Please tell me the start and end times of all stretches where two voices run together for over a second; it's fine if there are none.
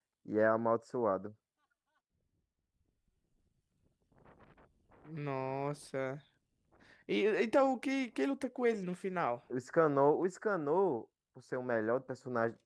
none

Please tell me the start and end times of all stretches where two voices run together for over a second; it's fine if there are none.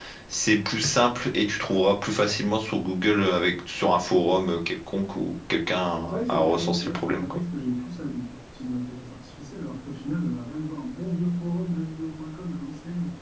6.1-7.4

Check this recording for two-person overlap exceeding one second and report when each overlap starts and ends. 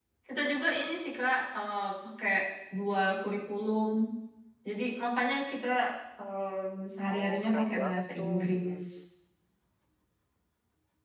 7.1-8.8

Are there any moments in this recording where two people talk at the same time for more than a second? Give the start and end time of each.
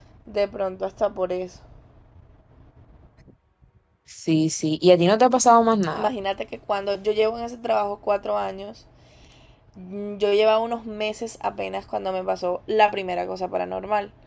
none

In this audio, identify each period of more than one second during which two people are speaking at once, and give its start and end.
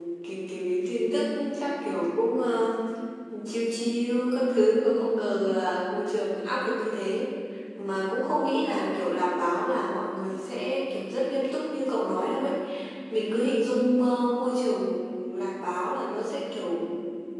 none

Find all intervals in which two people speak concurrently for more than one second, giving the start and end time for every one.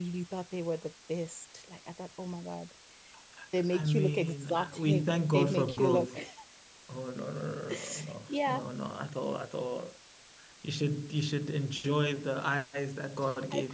3.7-6.2

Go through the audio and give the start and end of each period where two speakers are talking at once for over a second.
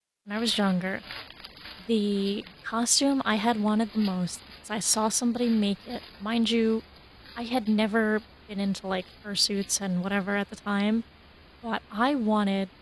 none

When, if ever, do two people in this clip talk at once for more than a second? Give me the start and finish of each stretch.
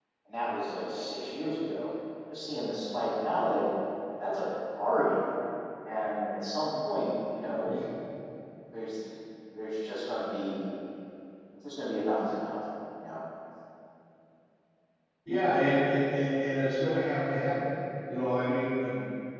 none

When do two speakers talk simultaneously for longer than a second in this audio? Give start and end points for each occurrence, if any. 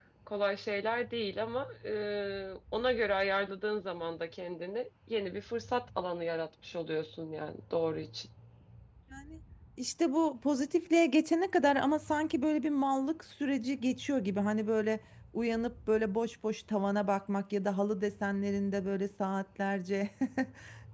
none

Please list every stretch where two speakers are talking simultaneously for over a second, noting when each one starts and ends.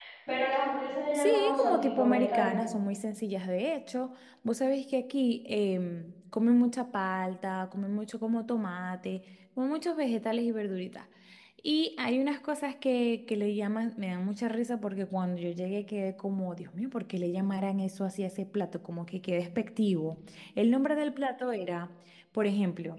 1.1-2.6

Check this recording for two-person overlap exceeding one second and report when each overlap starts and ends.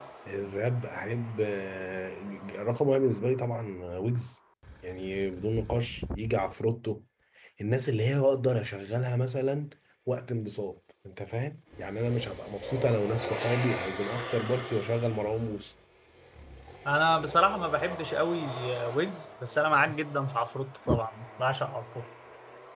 none

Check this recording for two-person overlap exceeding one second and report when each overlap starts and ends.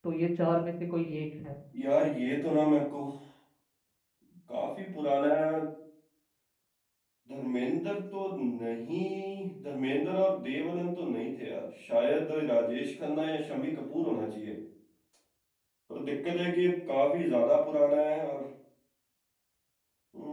none

